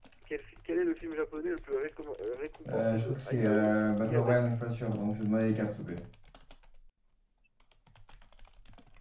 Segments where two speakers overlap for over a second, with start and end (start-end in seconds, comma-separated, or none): 2.7-4.6